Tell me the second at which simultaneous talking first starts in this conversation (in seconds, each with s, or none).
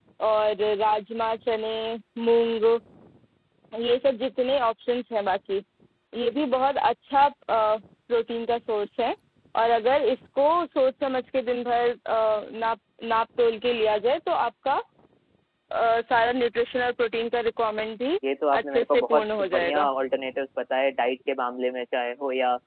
18.6 s